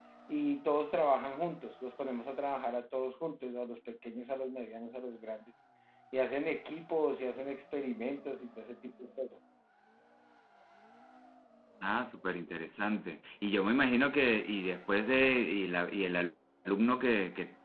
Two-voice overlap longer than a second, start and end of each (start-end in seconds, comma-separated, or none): none